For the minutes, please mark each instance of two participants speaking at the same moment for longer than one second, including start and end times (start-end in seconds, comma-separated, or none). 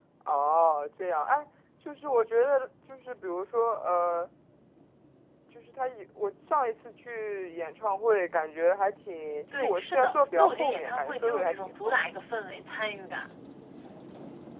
9.5-12.0